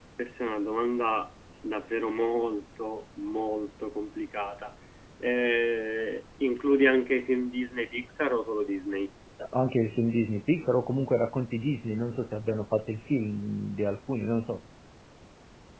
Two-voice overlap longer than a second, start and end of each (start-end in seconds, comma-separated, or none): none